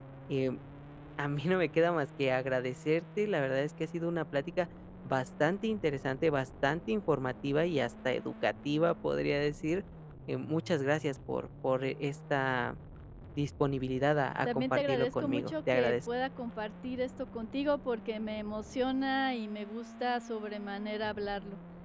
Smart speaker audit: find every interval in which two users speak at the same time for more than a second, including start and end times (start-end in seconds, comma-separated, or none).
14.4-16.0